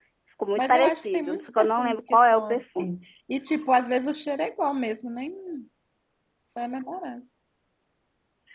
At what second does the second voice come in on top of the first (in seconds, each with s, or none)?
0.6 s